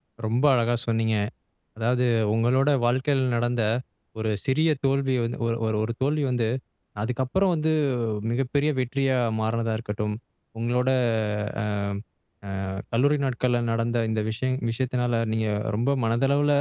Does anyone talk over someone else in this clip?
No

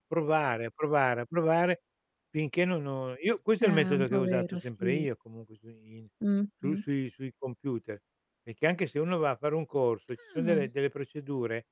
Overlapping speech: Yes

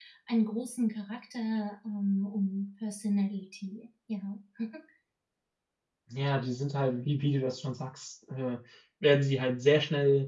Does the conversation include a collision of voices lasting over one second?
No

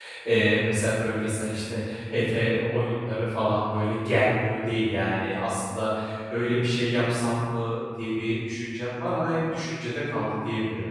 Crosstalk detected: No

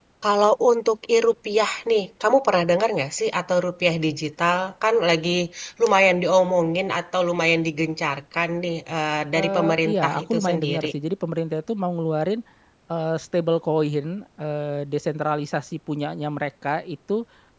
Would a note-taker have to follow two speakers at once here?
Yes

